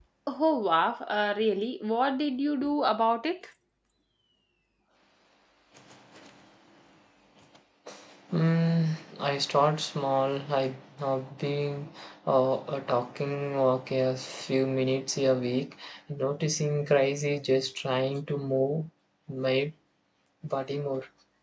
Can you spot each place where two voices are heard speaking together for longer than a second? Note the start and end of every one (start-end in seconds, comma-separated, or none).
none